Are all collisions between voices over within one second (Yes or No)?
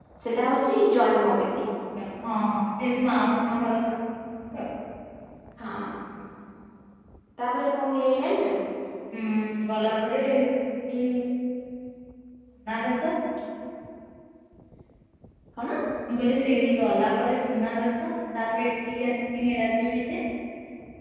Yes